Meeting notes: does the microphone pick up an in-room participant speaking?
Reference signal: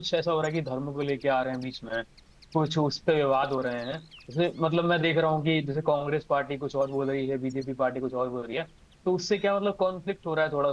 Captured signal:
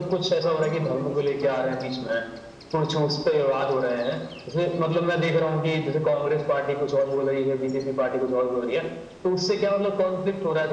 Yes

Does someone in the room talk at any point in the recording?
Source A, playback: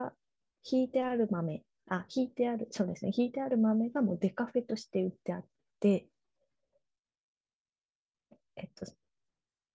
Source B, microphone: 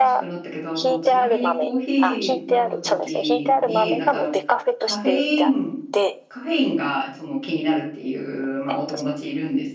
Yes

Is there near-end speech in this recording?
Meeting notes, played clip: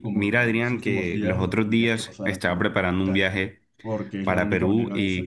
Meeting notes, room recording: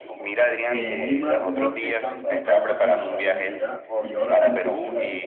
Yes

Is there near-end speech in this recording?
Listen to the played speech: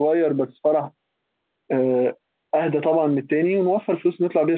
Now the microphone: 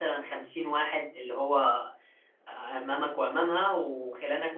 Yes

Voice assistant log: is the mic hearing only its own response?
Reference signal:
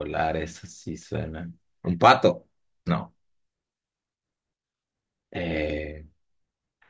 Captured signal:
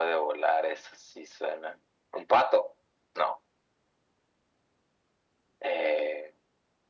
Yes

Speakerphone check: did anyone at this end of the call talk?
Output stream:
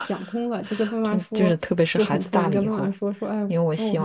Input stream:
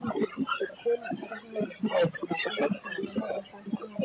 No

